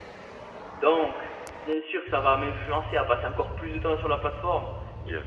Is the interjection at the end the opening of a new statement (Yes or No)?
No